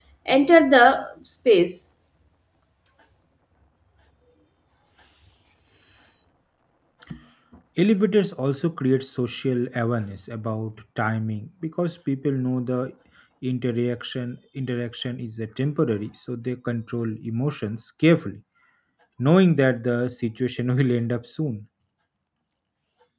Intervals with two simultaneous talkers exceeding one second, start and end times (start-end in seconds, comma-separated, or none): none